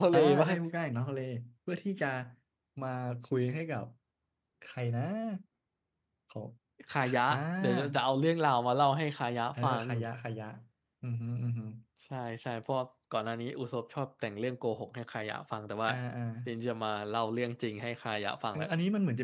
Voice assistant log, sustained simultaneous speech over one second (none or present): none